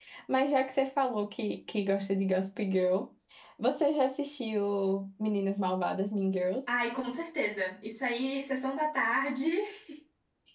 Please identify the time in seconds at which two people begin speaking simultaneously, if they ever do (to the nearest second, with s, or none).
none